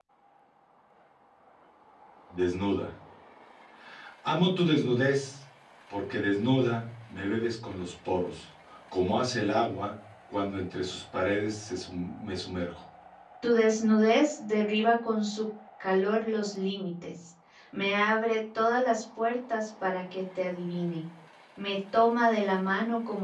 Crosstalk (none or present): none